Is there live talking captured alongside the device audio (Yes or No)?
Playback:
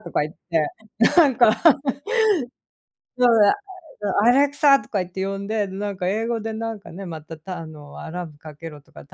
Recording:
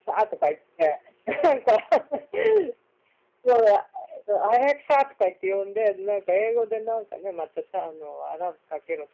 No